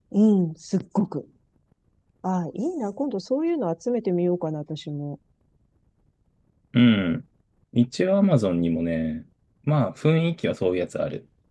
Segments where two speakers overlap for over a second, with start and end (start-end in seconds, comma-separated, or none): none